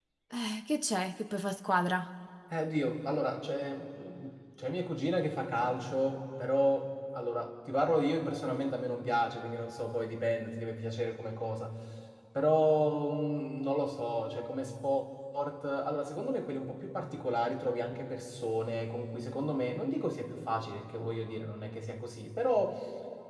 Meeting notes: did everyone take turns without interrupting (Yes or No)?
Yes